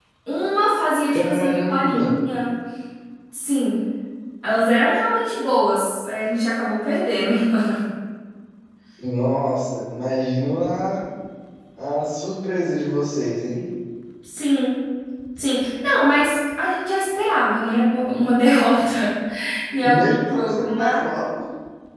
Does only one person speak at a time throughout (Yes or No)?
No